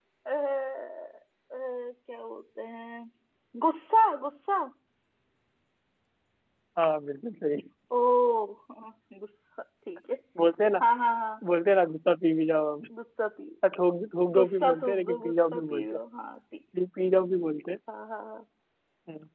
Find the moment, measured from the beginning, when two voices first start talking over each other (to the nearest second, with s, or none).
14 s